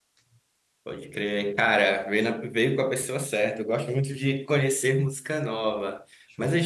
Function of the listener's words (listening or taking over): listening